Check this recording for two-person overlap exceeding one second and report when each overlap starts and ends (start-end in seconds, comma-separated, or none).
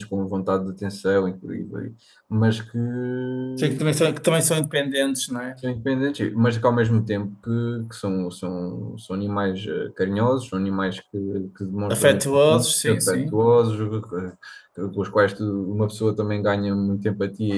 11.9-13.4